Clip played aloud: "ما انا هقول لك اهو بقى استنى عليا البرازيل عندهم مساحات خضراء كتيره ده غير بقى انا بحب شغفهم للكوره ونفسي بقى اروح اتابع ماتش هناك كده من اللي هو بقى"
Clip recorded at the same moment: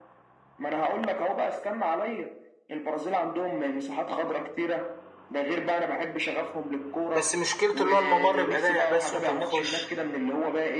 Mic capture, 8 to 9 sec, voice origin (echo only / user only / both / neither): both